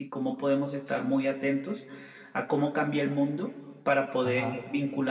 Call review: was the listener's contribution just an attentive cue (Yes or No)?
Yes